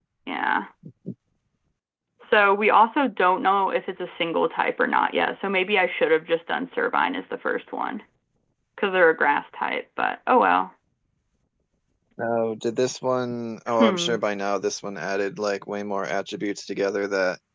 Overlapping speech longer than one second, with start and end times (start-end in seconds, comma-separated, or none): none